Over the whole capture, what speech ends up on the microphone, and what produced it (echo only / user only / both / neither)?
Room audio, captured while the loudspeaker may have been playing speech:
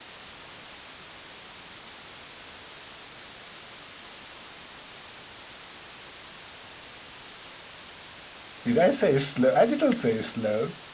user only